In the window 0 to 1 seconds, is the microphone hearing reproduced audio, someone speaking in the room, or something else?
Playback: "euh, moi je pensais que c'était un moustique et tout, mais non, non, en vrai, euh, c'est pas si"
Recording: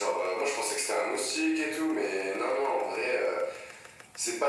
echo only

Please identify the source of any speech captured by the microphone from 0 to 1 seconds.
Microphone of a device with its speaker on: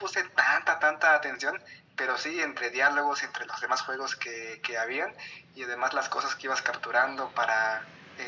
echo only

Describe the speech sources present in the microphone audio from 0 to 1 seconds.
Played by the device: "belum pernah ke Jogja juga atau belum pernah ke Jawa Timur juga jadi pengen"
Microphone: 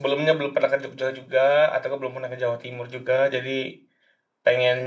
echo only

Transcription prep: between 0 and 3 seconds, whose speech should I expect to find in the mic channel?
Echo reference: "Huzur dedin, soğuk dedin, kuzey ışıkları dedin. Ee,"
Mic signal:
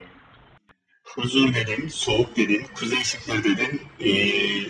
echo only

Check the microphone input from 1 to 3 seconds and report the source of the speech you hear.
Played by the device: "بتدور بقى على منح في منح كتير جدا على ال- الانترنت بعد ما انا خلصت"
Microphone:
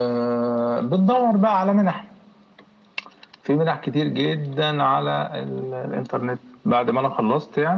echo only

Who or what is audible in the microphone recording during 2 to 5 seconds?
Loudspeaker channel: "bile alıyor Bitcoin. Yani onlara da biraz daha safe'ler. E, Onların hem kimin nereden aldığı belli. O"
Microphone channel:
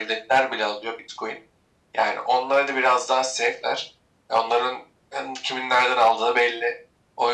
echo only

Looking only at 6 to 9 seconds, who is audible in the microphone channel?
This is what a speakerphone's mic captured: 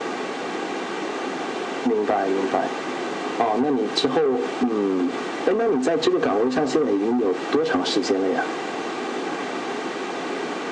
echo only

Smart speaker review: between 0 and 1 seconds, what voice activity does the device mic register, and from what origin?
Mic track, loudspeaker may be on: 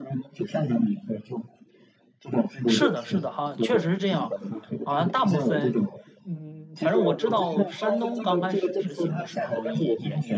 echo only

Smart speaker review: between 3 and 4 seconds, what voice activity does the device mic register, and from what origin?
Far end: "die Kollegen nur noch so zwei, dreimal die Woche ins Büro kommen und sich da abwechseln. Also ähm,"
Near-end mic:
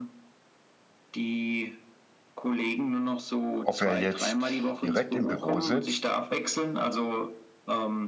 both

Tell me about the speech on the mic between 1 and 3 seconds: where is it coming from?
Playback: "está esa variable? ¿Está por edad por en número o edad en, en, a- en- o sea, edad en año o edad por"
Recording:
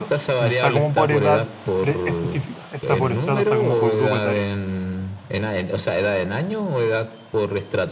both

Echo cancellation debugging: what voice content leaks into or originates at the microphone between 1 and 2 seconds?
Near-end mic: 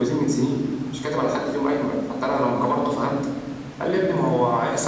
echo only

